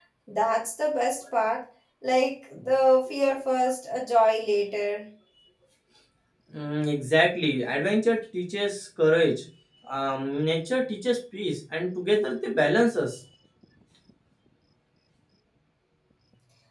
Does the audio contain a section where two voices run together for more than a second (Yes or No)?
No